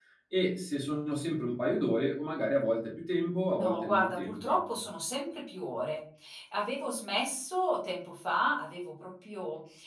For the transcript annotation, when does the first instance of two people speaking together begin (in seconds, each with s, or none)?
3.5 s